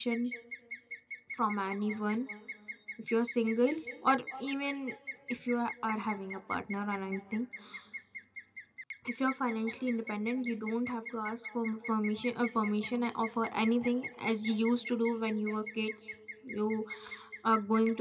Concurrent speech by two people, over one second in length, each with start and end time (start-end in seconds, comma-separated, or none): none